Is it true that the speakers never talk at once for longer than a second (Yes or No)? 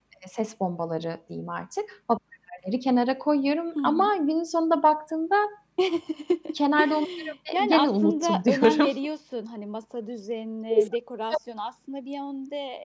No